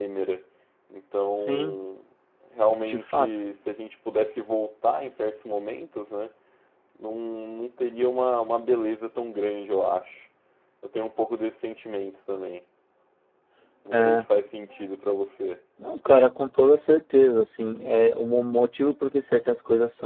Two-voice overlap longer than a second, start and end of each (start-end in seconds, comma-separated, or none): none